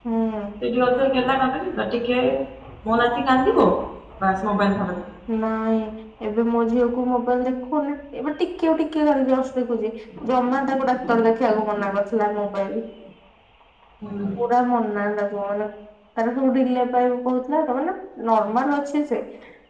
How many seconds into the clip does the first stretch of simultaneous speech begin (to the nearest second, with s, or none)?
none